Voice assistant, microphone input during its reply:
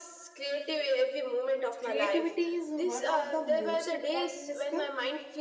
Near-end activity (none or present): present